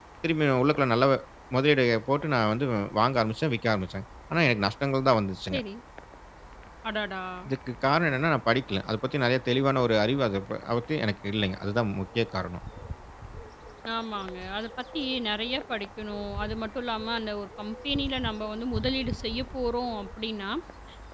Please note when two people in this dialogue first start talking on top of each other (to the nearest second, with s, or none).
none